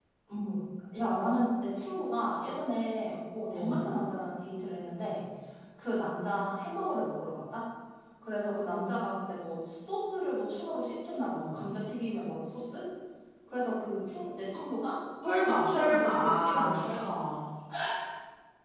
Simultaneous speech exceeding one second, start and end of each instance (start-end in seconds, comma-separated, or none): 15.4-17.1